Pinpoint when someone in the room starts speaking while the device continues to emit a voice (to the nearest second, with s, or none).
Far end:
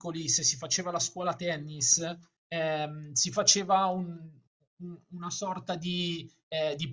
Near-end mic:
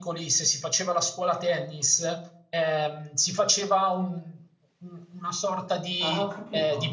6 s